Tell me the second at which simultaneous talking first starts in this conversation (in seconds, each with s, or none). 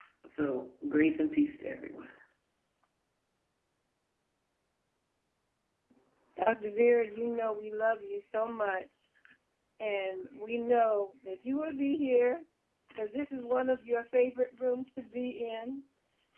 none